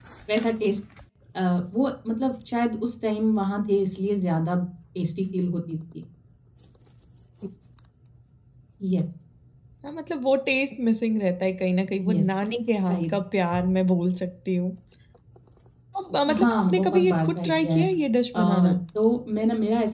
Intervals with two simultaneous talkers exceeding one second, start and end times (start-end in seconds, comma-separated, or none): 16.3-17.8